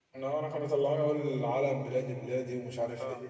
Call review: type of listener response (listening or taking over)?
taking over